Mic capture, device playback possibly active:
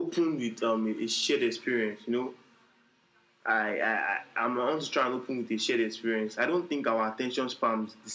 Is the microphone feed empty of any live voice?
Yes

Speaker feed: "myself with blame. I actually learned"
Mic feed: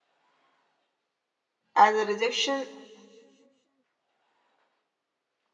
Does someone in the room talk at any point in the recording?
Yes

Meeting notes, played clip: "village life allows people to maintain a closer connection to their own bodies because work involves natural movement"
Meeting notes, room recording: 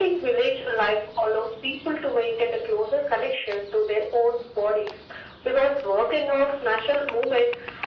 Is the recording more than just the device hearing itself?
No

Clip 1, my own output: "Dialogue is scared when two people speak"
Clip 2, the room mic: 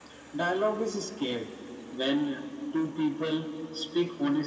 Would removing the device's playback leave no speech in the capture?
Yes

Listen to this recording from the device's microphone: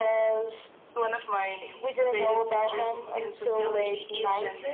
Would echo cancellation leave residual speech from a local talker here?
No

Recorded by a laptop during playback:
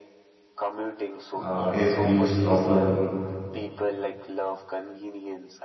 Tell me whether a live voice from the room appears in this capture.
Yes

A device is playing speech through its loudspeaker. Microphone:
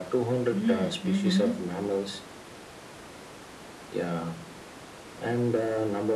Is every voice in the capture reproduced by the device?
No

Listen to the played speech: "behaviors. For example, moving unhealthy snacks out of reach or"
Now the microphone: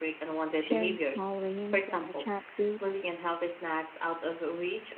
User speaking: Yes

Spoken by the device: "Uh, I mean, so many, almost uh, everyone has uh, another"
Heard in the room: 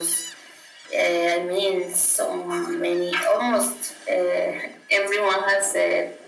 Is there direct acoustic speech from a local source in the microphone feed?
No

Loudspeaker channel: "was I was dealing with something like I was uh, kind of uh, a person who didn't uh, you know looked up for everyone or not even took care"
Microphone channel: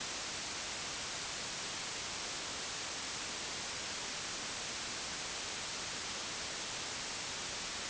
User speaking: No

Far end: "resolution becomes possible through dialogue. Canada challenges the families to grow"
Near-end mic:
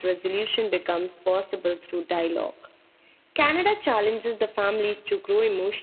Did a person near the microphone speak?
No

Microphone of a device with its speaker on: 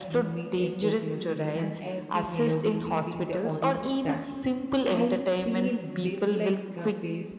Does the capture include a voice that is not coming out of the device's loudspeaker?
Yes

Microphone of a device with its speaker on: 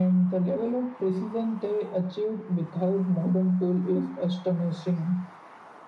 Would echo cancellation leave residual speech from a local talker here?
No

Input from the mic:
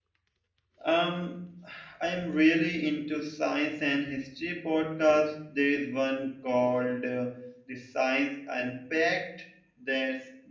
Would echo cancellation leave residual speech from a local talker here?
Yes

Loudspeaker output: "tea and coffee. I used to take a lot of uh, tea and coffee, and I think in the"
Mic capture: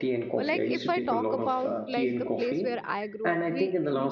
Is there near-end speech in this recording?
Yes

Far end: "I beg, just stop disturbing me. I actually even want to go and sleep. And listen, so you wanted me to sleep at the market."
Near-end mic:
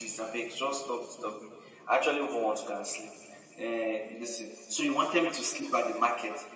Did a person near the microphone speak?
No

